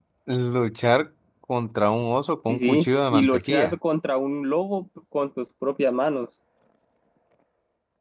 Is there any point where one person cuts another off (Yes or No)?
Yes